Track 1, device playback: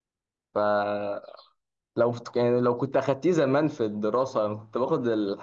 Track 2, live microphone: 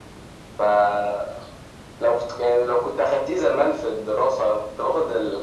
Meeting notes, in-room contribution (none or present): none